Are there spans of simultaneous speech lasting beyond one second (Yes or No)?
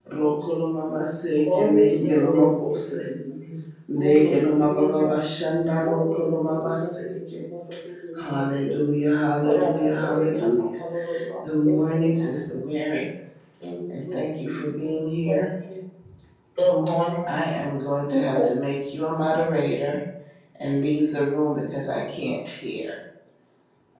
Yes